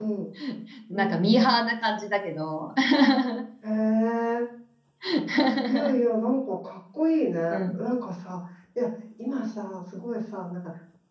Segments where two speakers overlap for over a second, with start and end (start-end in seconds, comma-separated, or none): none